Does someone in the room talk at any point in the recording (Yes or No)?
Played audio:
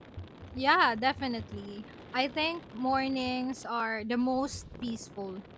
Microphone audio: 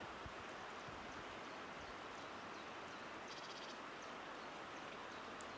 No